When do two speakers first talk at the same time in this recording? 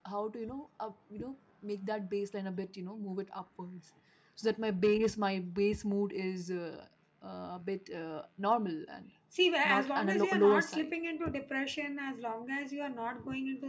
9.6 s

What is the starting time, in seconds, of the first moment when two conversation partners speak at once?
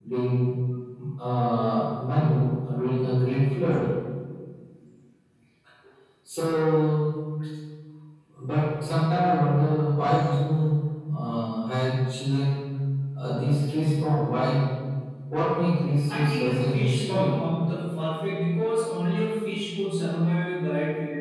16.1 s

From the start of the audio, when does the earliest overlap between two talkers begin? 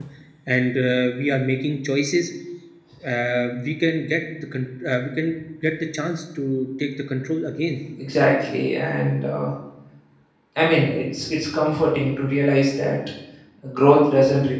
none

